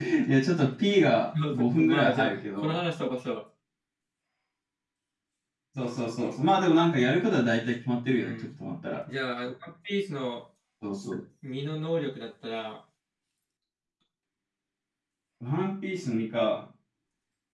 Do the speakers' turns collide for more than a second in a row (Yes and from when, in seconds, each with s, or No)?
Yes, from 1.5 s